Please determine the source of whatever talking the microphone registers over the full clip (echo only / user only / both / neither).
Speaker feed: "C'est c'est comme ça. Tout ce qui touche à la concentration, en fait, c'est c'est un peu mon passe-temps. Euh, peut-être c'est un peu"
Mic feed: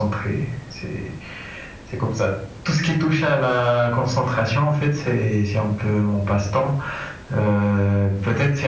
echo only